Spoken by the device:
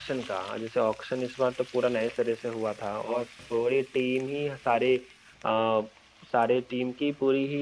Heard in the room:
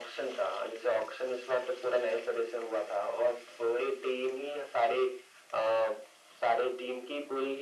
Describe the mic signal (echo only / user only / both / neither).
echo only